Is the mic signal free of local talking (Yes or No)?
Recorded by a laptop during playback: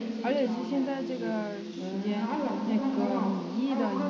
No